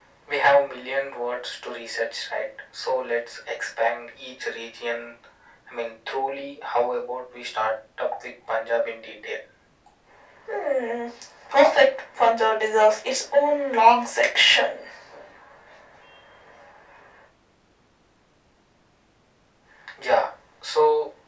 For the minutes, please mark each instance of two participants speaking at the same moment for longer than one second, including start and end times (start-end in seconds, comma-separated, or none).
none